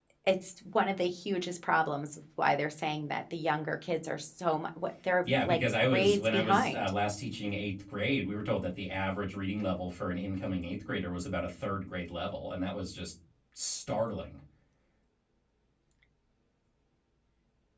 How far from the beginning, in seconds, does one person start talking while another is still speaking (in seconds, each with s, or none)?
5.2 s